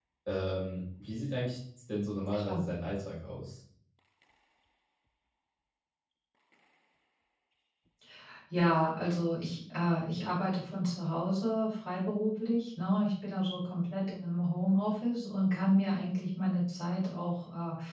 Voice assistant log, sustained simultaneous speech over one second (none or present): none